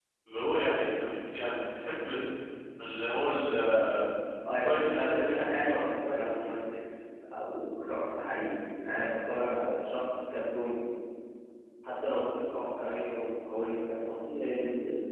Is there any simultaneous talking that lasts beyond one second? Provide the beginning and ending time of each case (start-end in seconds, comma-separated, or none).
4.5-5.8